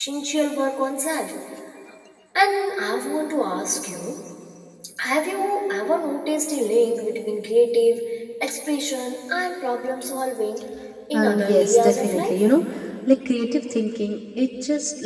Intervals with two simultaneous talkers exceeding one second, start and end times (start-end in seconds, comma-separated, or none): 11.1-12.5